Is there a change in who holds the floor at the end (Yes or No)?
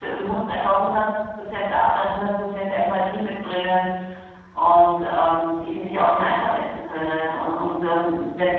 No